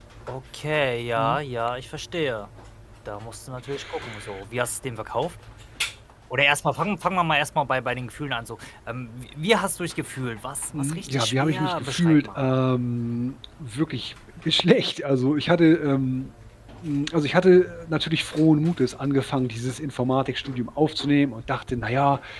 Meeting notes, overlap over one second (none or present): present